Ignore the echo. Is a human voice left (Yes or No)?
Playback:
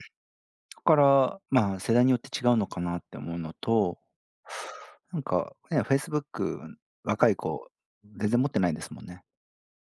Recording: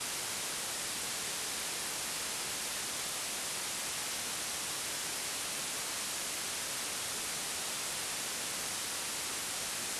No